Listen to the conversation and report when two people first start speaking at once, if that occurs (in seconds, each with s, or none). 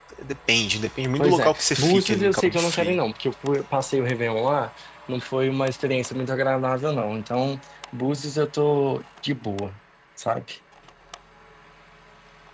1.2 s